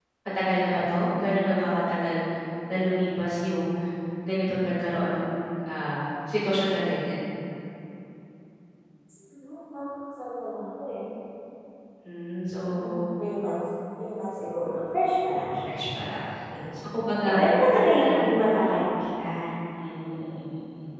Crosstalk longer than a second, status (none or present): none